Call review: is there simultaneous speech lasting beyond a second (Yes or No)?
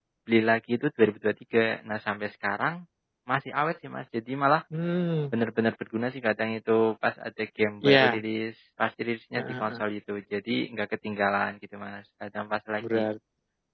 No